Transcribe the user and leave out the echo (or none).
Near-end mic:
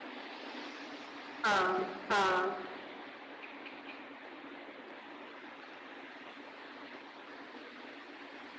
हाँ हाँ